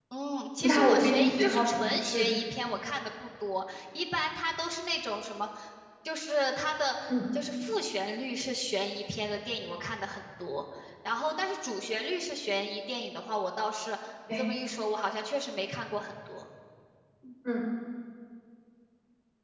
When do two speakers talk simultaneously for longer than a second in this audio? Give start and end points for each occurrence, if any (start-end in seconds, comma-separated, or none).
0.6-2.3